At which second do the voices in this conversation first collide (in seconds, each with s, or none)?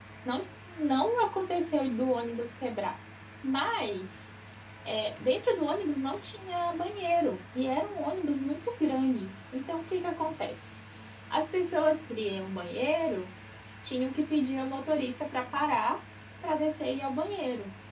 none